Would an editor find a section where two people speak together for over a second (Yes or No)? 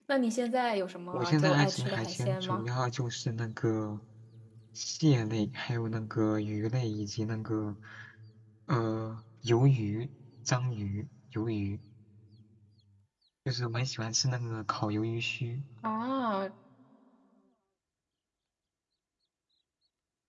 Yes